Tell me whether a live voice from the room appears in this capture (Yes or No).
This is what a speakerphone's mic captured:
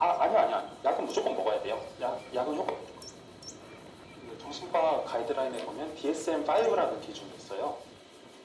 Yes